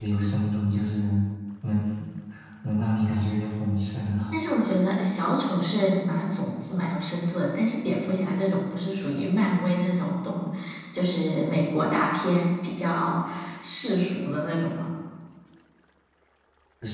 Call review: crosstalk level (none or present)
none